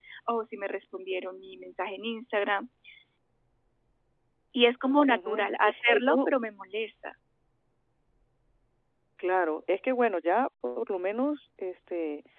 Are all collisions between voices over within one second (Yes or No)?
Yes